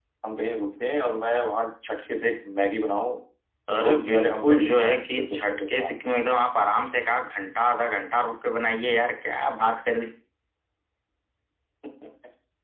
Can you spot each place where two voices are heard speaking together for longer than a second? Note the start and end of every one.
3.8-5.9

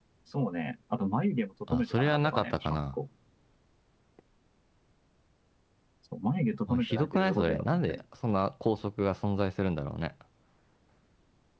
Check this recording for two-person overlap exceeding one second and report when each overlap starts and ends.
1.7-3.0, 6.7-8.0

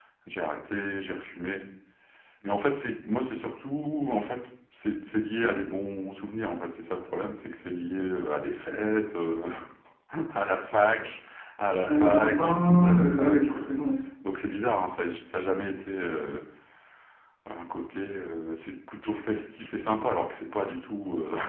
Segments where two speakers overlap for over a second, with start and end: 11.8-13.8

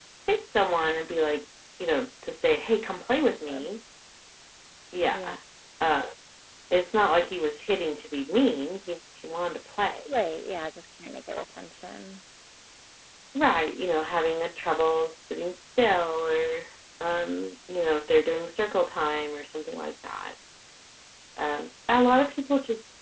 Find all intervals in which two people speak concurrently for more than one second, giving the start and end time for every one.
none

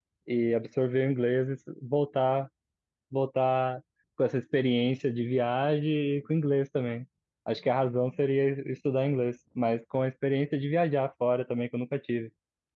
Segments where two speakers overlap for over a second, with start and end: none

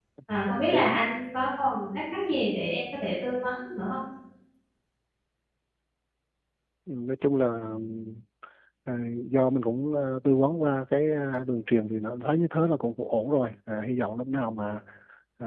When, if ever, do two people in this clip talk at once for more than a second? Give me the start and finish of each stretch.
none

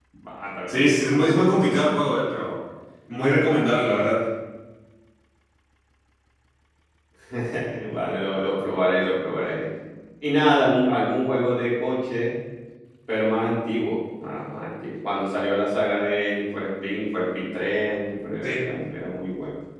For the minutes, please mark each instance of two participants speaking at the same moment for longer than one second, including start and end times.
0.7-2.0

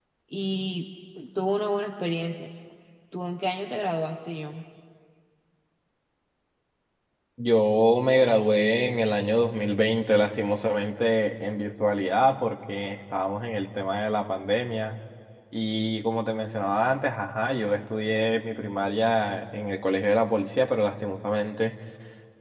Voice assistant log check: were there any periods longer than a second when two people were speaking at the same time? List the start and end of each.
none

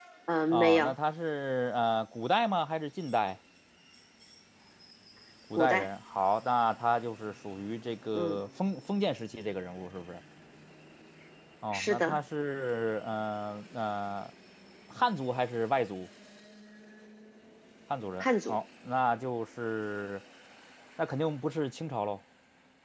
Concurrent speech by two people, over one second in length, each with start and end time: none

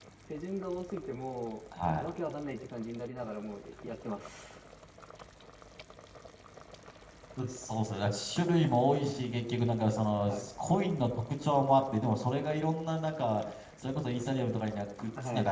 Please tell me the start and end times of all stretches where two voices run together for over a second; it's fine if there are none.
none

